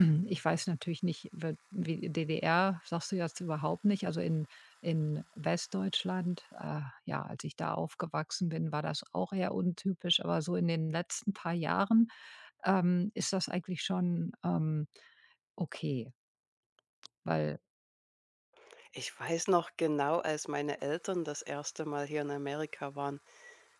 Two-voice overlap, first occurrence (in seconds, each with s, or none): none